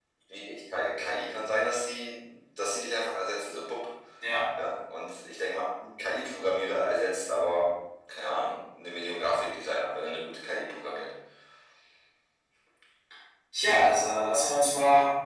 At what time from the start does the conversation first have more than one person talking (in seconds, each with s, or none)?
none